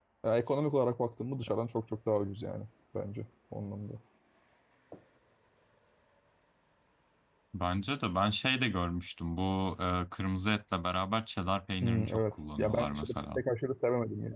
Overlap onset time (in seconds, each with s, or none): 11.8 s